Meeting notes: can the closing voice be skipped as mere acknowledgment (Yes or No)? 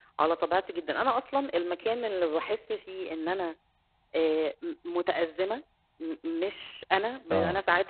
Yes